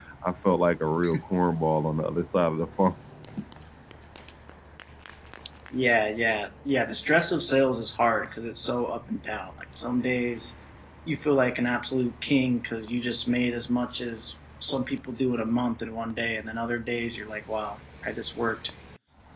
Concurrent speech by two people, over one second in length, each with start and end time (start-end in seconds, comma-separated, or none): none